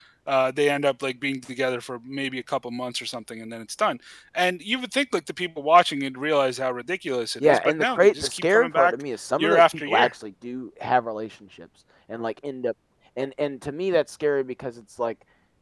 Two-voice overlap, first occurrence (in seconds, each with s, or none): 7.4 s